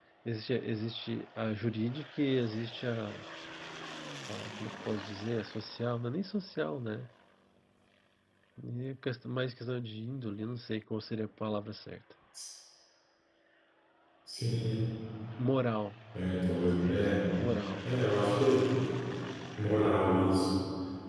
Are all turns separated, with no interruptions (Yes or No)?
Yes